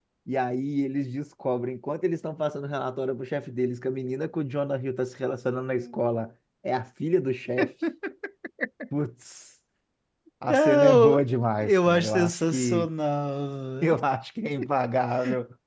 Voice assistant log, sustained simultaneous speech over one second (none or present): present